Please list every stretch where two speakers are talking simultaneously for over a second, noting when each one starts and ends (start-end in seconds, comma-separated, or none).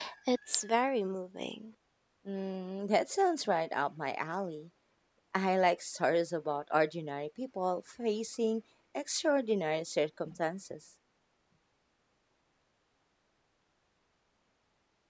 none